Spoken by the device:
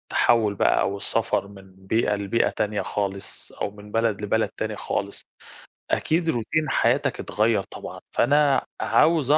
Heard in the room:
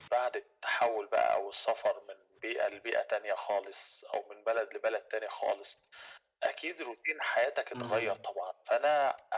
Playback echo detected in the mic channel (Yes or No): Yes